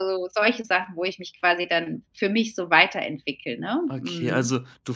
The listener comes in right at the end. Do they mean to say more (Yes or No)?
Yes